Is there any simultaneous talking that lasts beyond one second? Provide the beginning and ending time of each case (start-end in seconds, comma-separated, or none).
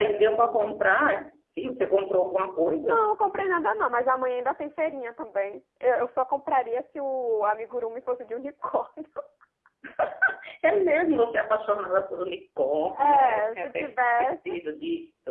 13.0-14.5